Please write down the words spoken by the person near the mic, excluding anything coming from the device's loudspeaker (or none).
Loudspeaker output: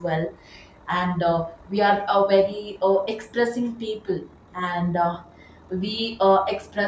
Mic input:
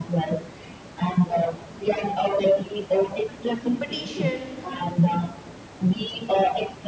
competition,